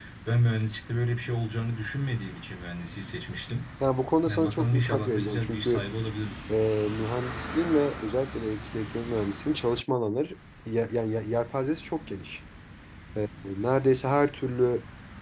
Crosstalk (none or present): present